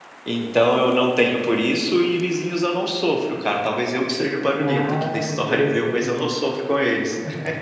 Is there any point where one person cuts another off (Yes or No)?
Yes